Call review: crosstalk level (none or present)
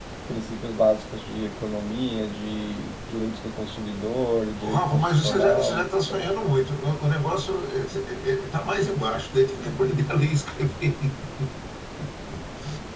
present